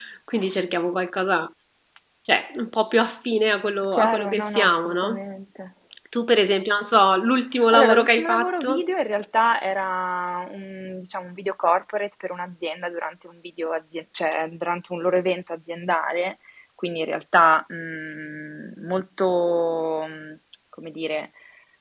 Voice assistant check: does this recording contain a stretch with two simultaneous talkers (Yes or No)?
Yes